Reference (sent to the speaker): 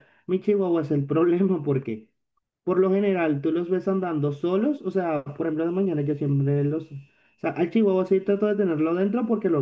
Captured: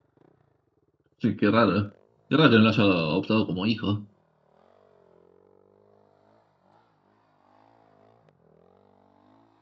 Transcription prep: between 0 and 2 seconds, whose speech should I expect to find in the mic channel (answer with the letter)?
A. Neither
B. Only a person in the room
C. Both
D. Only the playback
B